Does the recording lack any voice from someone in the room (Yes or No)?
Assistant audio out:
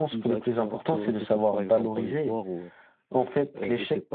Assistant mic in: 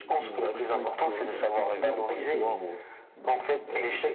No